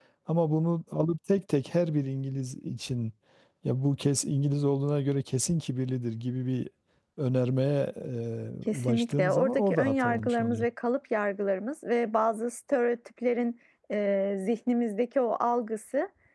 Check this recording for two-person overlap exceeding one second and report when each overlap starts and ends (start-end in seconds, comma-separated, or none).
8.7-10.7